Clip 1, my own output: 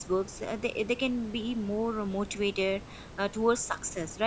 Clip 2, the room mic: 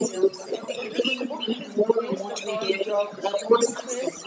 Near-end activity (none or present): present